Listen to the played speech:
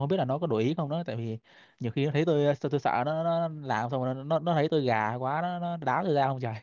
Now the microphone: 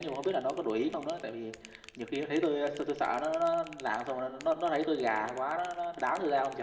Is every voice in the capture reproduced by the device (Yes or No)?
Yes